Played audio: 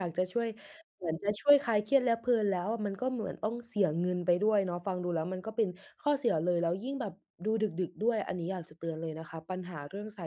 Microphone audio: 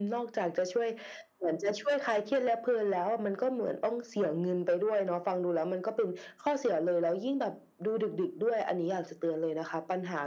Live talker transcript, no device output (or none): none